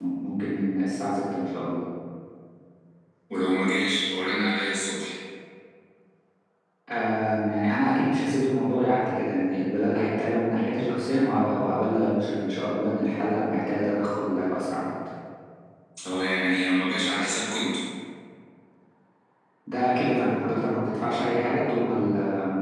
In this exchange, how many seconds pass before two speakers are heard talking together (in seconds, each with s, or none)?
none